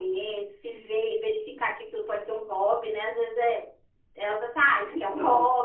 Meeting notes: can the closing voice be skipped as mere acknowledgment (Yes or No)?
Yes